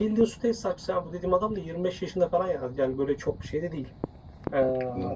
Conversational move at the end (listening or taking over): listening